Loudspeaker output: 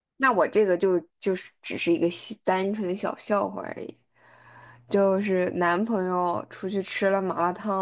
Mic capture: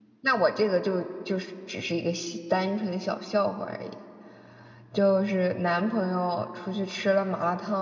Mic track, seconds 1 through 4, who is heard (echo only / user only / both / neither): echo only